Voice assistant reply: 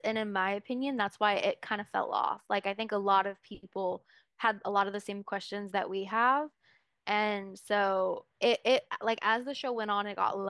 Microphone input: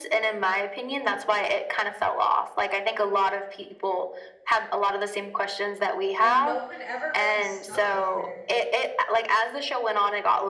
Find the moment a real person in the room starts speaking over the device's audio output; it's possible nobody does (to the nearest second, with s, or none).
6 s